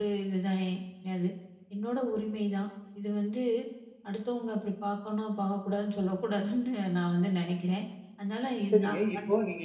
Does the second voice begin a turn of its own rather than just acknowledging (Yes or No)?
Yes